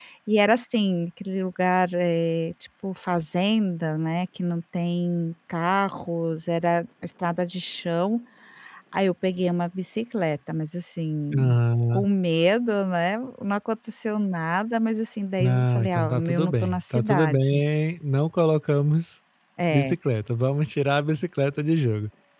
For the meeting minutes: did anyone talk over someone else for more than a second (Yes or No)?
Yes